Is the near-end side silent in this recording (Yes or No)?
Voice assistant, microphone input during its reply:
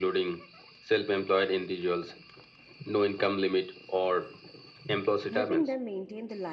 No